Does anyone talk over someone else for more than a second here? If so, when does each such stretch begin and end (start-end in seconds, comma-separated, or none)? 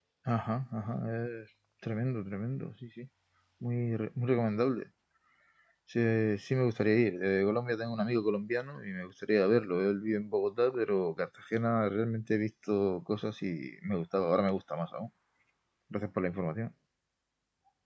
none